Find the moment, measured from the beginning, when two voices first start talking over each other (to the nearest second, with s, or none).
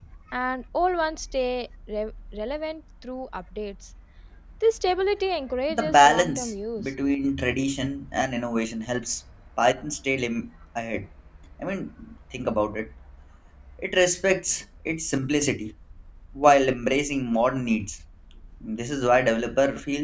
6 s